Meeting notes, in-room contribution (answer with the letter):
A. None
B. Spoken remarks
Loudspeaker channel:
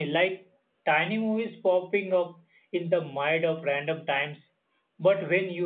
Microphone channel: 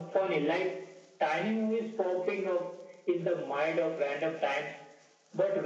A